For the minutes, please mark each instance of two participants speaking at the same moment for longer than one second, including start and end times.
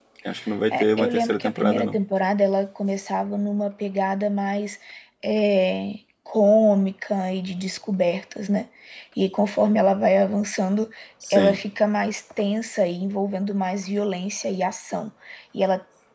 0.7-2.0

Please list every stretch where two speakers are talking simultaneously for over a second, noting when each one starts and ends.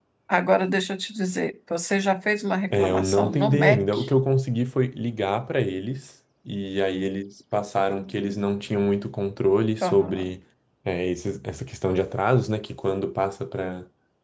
2.7-4.1

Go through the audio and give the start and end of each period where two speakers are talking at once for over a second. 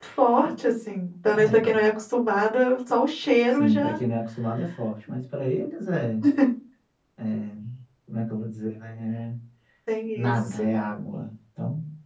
none

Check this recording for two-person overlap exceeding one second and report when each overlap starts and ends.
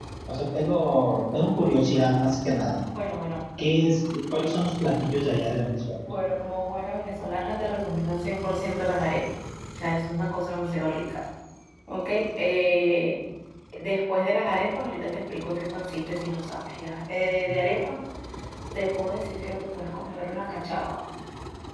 none

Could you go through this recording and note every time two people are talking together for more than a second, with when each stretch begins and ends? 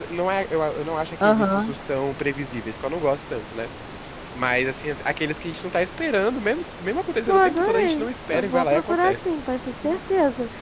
7.3-9.1

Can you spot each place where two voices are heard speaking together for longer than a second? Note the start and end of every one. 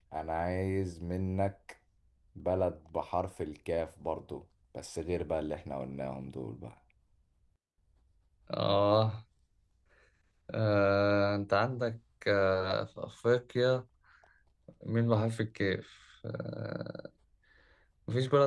none

